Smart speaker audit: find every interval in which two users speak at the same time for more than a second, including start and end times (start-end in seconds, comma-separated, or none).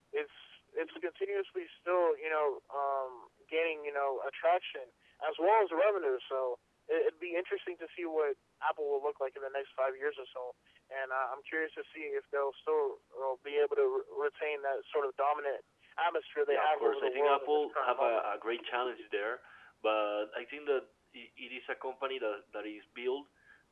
16.5-18.3